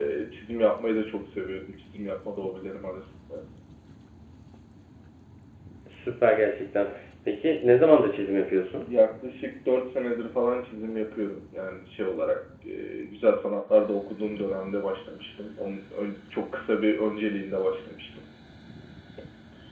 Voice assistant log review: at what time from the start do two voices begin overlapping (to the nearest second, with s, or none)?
none